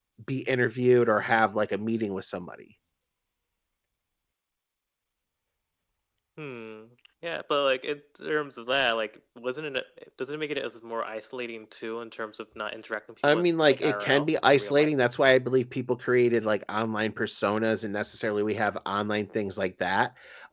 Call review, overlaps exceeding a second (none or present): present